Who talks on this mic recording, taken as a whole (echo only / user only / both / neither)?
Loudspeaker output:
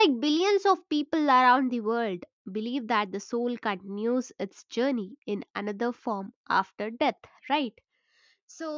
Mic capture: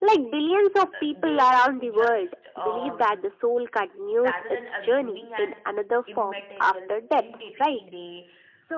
both